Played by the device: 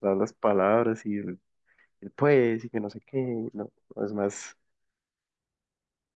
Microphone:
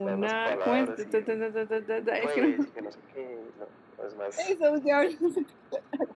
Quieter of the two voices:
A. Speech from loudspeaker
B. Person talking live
A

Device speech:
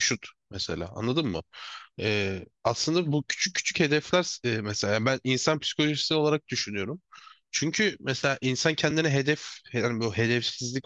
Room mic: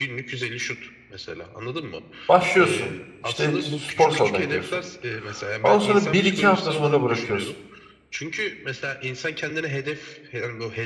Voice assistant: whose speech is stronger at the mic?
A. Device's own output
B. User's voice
B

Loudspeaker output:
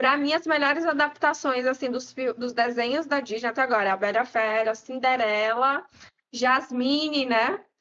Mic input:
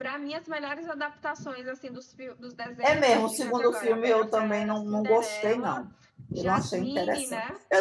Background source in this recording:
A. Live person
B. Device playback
B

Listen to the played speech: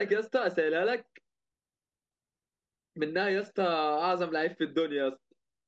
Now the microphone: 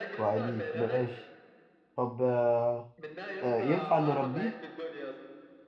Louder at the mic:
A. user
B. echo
A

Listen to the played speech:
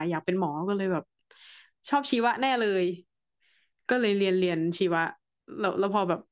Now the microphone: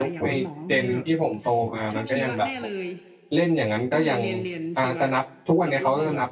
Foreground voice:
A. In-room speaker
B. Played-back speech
A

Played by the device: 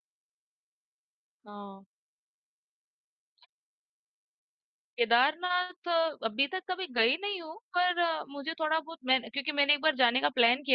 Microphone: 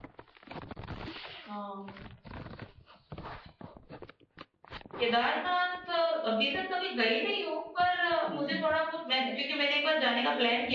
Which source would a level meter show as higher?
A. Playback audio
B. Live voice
A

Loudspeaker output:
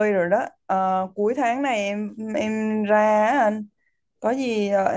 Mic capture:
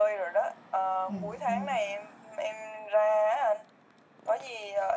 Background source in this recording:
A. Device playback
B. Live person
B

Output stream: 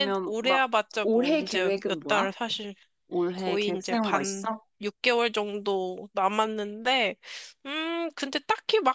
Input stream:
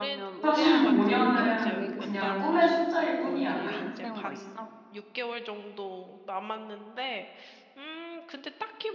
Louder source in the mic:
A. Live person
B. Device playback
A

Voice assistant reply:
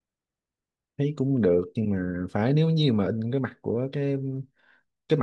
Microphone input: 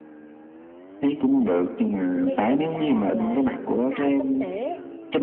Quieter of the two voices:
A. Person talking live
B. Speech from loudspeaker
A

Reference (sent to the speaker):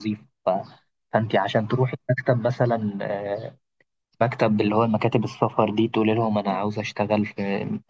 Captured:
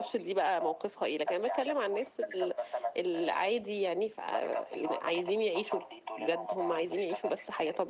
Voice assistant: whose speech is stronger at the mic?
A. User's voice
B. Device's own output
A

